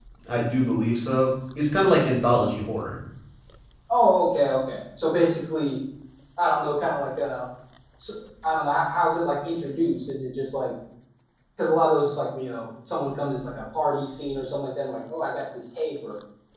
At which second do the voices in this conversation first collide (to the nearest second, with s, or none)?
none